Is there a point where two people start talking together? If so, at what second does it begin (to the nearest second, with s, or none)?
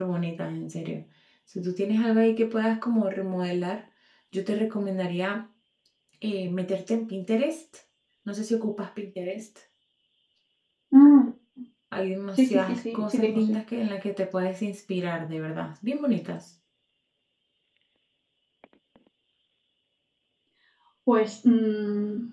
12 s